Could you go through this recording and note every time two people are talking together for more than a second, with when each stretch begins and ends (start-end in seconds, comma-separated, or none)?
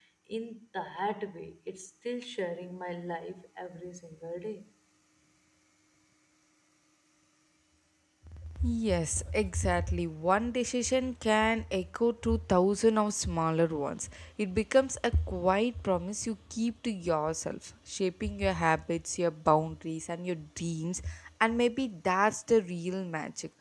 none